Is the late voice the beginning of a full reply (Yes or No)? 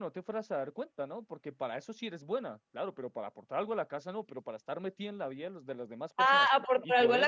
Yes